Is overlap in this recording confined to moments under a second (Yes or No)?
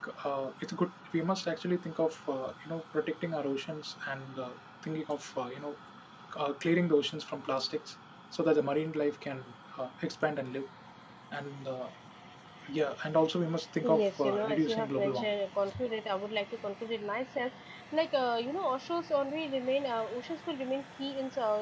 No